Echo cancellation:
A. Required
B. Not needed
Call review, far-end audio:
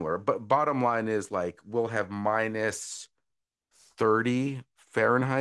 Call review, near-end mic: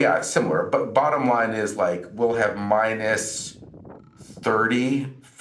A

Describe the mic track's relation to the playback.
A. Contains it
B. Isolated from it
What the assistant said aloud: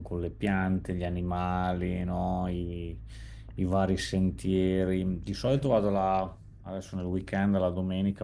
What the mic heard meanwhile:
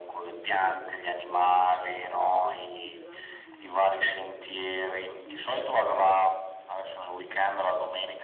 A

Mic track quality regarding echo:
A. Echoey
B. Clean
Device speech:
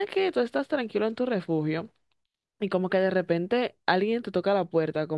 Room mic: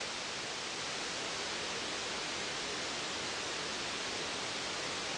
B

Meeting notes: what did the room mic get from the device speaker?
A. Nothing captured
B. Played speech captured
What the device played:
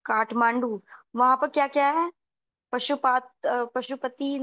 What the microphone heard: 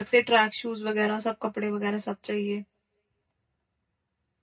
A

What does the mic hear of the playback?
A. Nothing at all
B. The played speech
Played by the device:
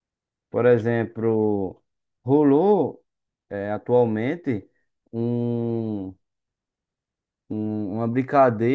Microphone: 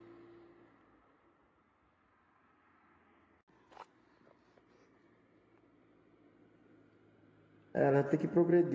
A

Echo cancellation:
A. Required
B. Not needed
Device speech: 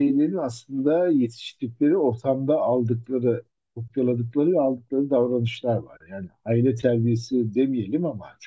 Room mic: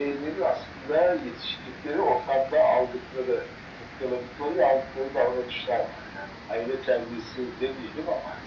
A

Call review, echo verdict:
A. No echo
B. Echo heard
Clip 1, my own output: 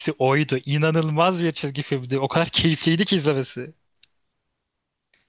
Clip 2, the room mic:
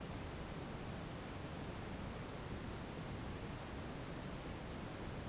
A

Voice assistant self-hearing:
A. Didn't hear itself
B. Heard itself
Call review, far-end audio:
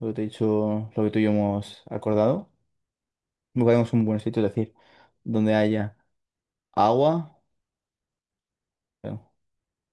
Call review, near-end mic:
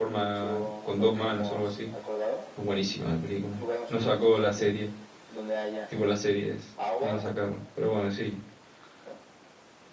B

